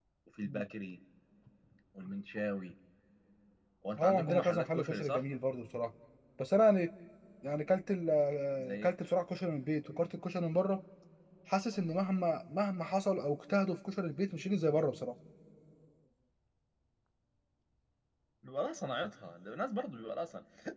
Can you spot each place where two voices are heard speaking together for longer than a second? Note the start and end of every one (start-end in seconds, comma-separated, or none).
4.0-5.2